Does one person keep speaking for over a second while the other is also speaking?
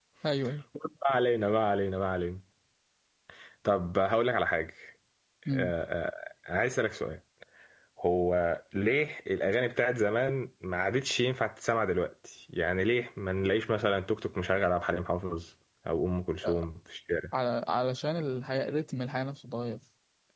No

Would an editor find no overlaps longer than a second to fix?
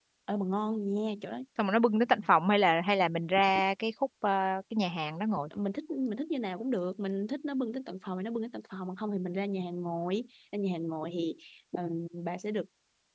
Yes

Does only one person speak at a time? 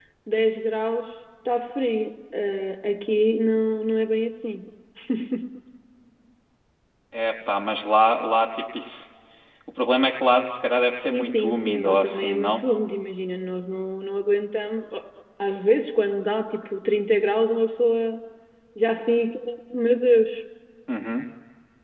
No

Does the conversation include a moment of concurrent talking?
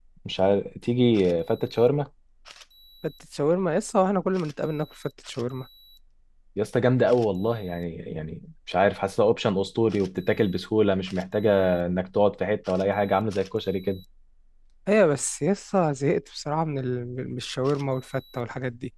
No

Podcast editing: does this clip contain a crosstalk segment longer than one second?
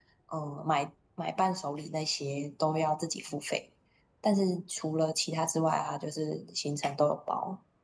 No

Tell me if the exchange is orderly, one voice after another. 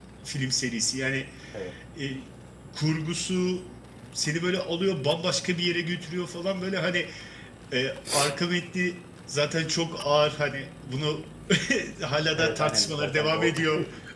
No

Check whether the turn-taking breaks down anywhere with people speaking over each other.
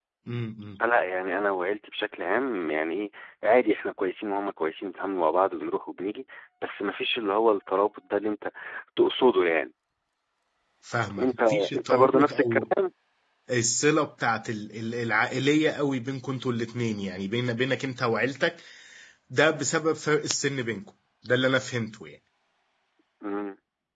Yes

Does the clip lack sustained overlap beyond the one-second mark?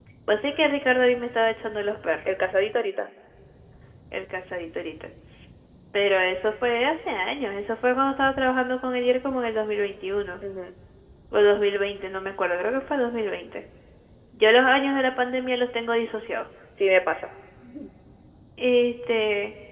Yes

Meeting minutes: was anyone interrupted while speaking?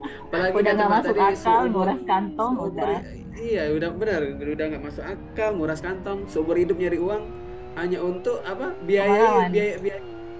Yes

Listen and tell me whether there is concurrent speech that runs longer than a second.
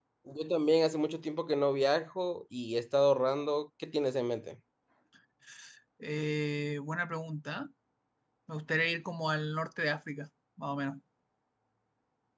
No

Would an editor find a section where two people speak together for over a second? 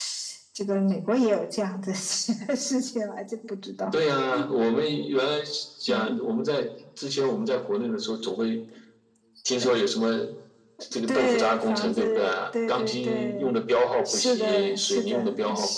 Yes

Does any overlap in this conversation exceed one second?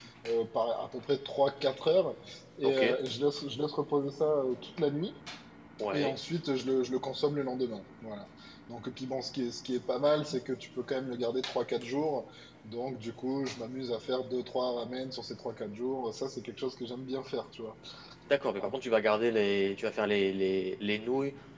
No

